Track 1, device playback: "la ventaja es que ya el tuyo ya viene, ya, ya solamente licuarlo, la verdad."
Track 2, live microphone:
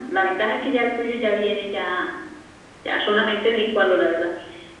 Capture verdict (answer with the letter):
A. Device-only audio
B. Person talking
A